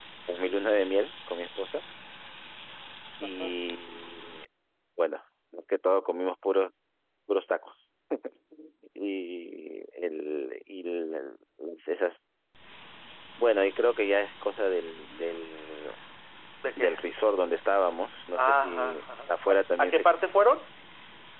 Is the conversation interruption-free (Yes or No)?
No